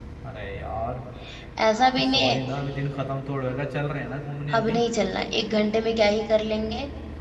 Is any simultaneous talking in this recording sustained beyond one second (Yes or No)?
No